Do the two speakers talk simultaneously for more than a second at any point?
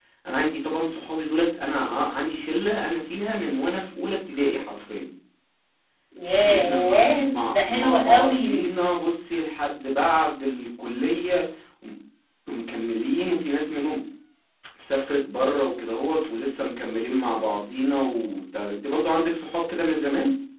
Yes, from 6.4 s

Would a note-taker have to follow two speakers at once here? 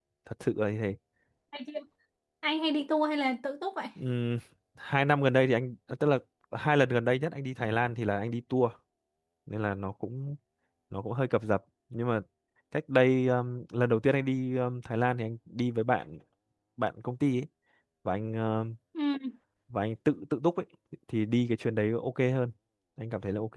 No

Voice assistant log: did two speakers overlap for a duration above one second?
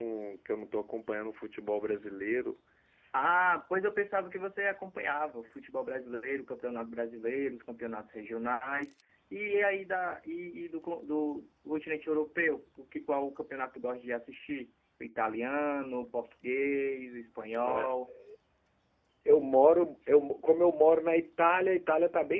No

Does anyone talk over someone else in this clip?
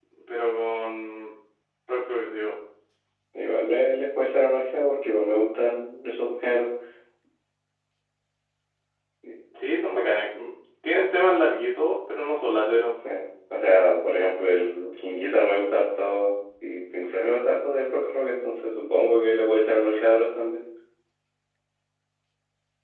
No

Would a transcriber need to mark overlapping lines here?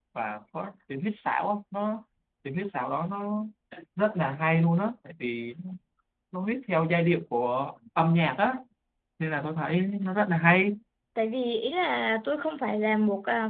No

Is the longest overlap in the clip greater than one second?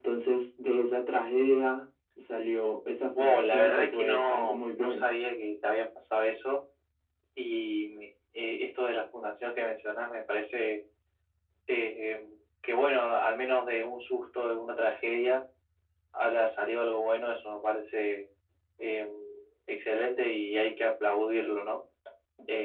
Yes, from 3.1 s

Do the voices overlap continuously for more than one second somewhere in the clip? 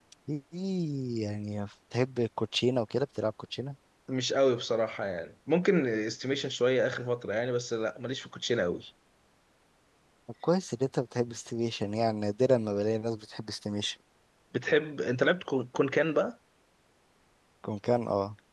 No

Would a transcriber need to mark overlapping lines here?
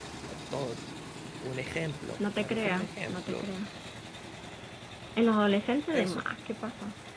Yes, from 2.2 s

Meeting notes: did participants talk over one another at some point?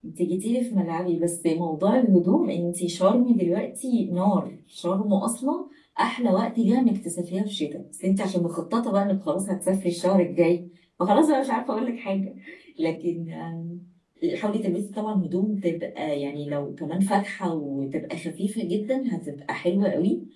No

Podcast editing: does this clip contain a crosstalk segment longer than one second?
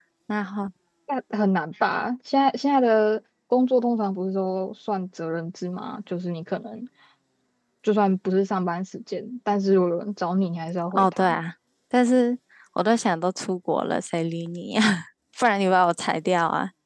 No

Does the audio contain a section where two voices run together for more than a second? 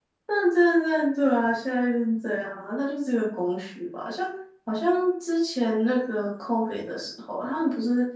No

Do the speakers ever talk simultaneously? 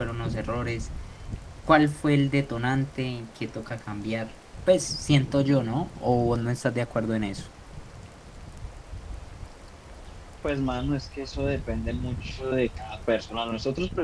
No

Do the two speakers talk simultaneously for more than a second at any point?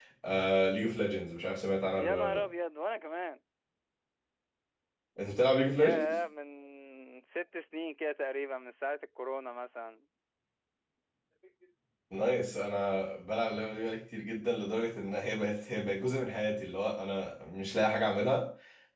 No

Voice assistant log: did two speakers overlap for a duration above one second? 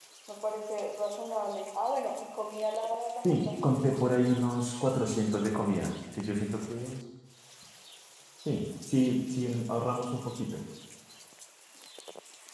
No

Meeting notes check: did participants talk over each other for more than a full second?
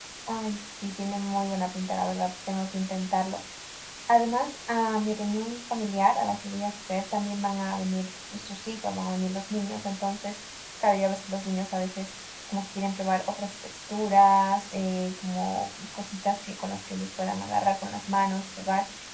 No

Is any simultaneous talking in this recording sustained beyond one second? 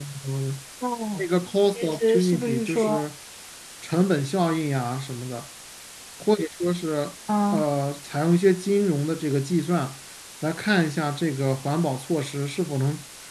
Yes, from 1.7 s

